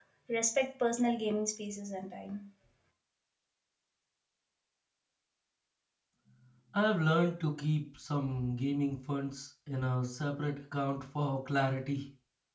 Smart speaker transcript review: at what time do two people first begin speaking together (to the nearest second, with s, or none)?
none